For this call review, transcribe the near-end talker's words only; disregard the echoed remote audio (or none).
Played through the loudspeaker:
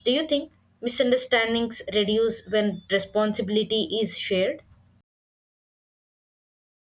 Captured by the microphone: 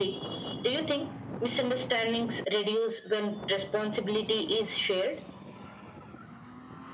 none